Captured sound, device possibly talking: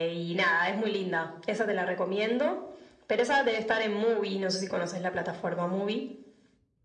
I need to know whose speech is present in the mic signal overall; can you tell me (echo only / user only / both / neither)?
echo only